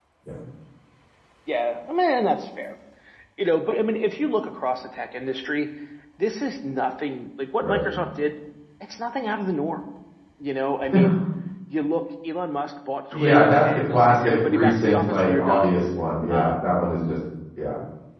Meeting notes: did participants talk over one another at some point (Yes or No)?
Yes